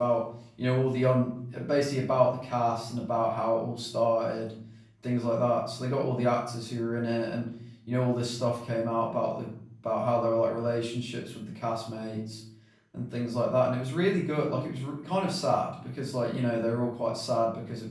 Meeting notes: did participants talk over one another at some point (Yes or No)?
No